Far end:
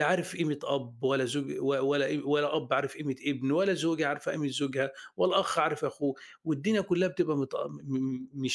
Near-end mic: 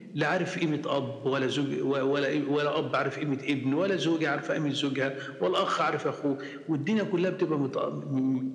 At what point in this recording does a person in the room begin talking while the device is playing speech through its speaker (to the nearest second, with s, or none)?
none